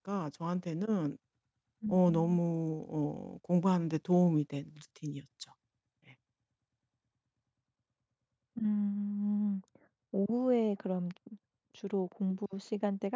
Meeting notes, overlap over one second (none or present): none